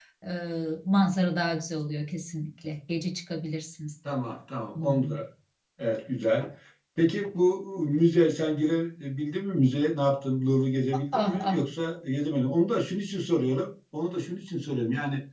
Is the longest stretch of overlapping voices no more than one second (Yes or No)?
Yes